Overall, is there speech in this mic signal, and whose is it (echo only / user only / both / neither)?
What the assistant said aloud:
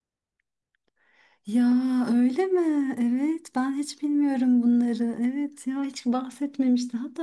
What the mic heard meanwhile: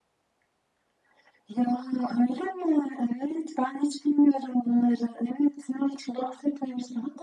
echo only